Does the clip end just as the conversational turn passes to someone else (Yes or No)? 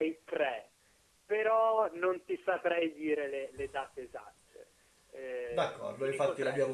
Yes